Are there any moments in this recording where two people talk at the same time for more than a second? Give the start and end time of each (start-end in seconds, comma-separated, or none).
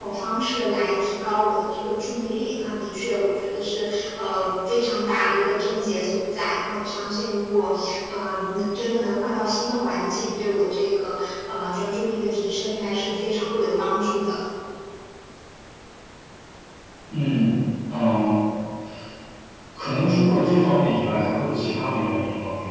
none